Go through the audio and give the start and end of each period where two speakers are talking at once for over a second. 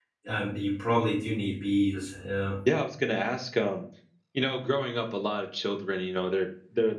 none

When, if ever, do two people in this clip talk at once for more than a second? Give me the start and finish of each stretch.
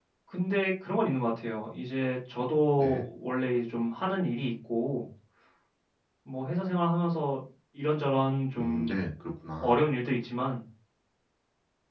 none

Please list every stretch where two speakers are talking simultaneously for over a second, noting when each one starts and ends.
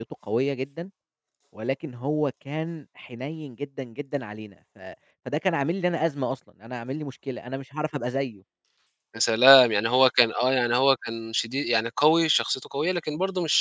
none

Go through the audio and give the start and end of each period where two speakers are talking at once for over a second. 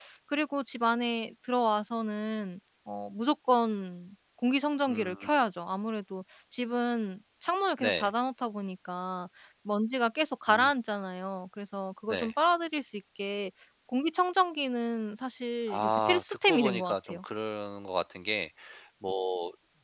15.7-17.2

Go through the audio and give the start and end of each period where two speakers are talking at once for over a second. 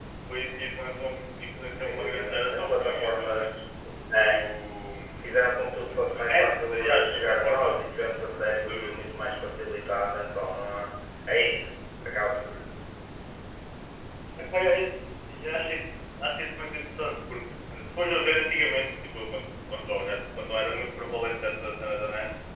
1.7-3.4, 6.2-7.8

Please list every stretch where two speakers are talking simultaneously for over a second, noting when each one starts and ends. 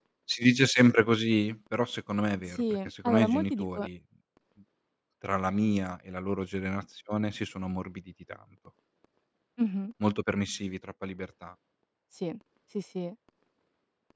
2.5-3.9

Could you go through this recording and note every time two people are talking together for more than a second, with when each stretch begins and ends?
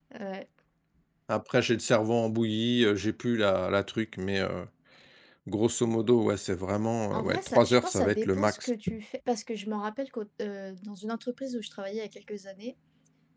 7.1-8.7

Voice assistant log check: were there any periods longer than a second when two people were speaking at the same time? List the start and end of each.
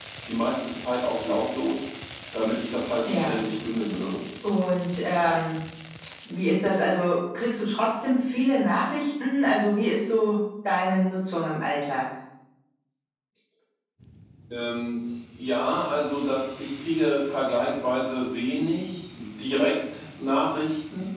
none

